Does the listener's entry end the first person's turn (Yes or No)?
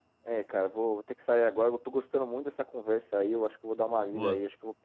No